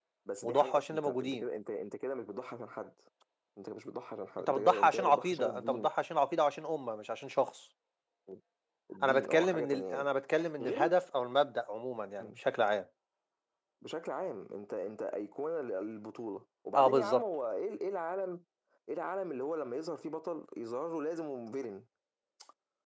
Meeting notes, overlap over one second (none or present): present